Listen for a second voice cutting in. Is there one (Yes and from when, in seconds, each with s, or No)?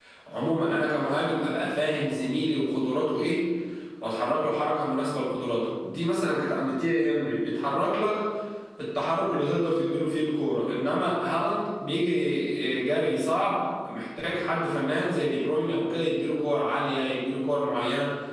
No